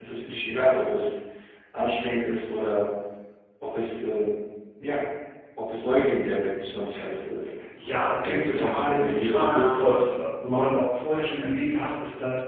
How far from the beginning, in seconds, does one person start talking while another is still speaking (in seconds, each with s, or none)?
8.2 s